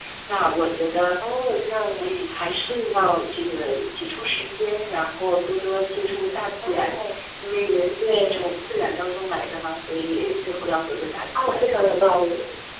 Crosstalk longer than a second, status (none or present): none